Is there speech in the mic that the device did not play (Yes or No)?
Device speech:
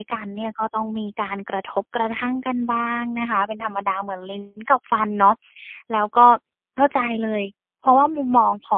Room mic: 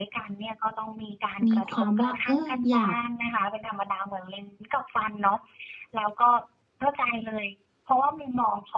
Yes